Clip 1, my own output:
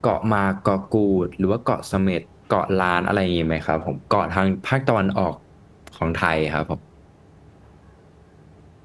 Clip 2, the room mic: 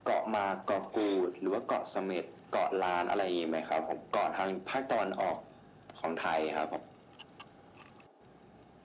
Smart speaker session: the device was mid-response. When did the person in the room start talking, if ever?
none

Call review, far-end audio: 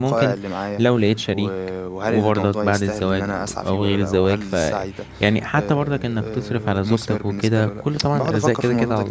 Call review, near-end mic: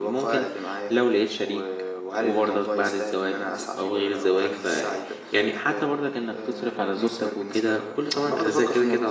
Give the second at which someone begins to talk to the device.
none

